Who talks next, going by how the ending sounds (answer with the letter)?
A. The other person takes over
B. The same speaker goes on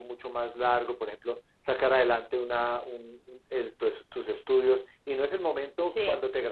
B